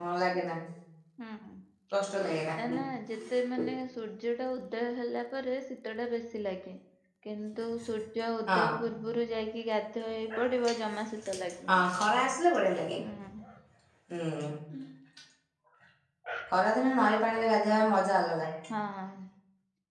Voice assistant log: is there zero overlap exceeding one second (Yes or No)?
Yes